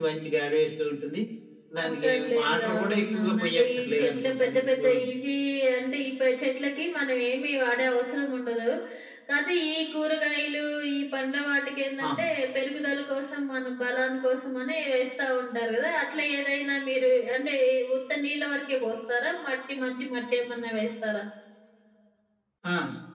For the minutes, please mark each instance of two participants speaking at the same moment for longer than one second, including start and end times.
1.8-4.9

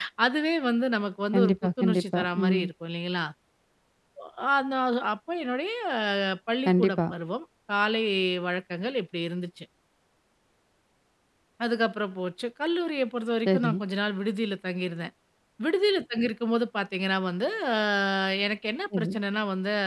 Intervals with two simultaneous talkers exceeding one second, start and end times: 1.3-2.6

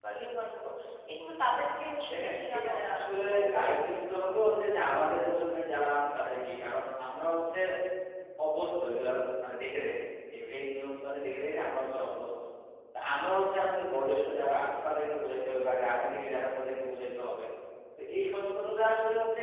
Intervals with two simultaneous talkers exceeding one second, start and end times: 2.1-3.8

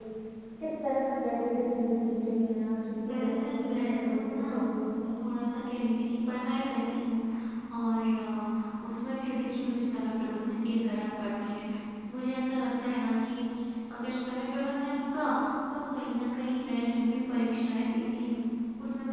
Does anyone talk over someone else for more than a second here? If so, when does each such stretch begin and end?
3.1-4.5

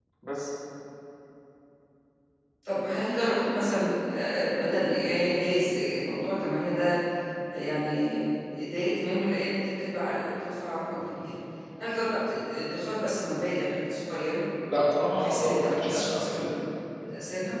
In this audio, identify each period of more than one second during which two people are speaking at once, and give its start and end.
15.1-16.5

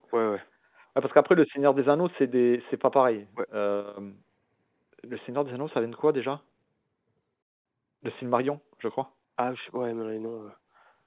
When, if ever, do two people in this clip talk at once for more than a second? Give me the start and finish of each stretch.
none

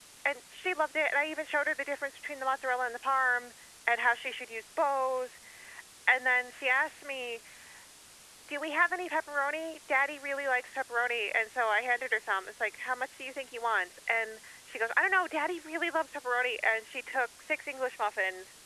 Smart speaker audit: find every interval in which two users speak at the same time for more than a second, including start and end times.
none

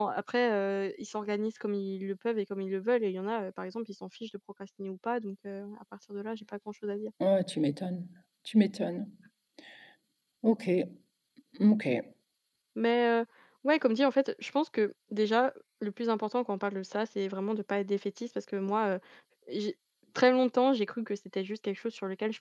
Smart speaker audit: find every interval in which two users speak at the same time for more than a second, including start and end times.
none

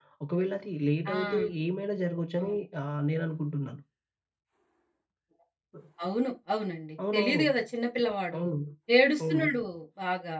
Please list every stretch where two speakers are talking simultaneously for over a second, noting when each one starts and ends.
none

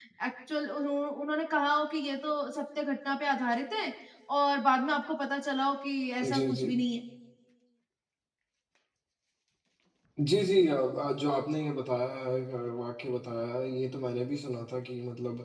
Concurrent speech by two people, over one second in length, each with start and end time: none

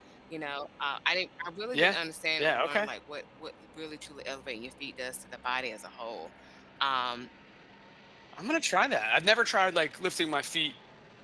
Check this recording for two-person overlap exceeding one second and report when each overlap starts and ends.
none

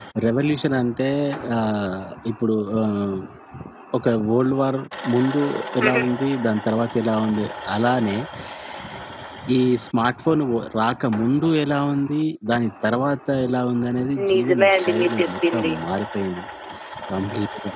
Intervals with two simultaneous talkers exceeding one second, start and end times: 14.3-15.7

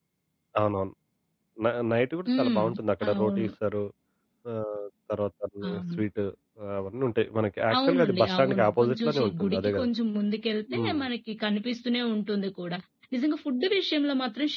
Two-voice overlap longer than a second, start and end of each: 7.8-9.9

